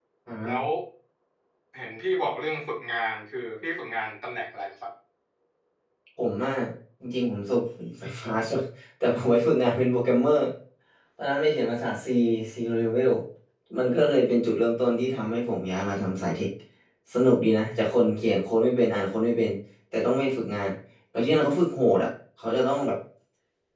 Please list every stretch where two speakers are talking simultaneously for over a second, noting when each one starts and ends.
none

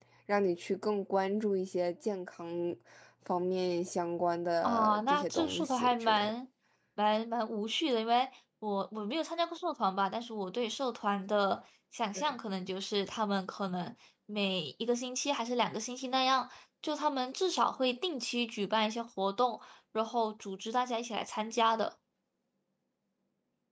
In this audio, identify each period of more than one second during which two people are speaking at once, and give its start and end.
4.6-6.3

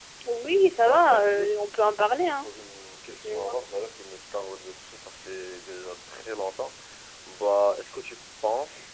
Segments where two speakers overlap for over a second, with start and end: 0.7-2.5

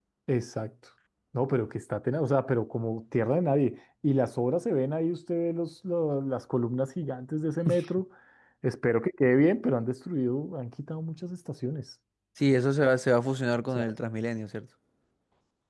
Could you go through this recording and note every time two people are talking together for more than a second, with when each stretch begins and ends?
none

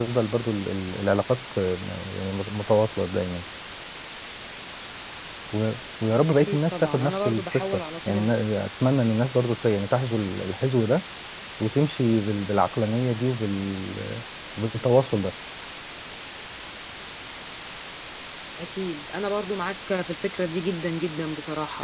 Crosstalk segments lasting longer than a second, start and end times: 6.3-8.4

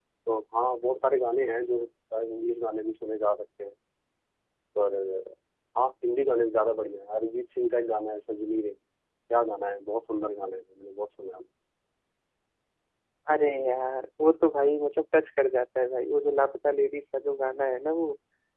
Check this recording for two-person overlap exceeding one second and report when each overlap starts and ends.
none

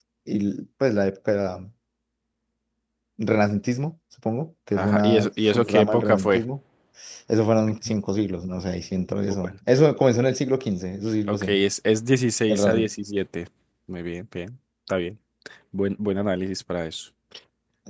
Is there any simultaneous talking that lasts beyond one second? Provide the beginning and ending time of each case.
4.8-6.4

